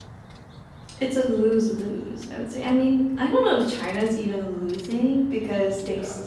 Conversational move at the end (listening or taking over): listening